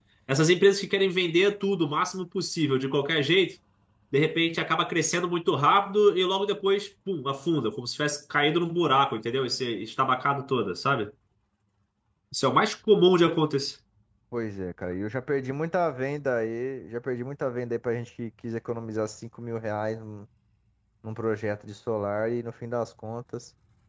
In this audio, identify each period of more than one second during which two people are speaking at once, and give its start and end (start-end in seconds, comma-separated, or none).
none